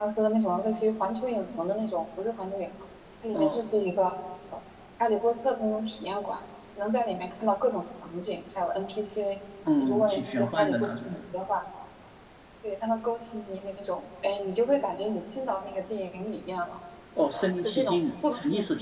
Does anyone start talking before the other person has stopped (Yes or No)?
Yes